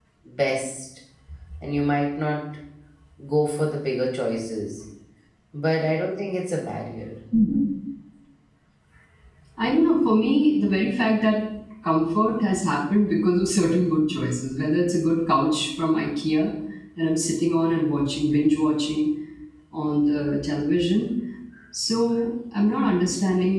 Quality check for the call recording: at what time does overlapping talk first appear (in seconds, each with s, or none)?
none